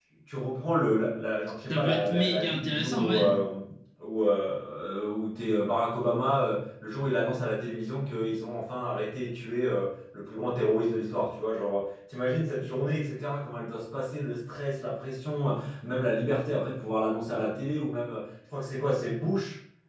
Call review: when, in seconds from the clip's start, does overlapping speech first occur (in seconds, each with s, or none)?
1.7 s